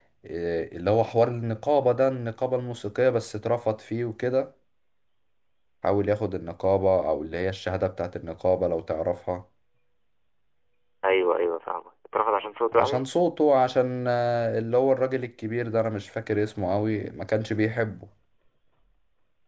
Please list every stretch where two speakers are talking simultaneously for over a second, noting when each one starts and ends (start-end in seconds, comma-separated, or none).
none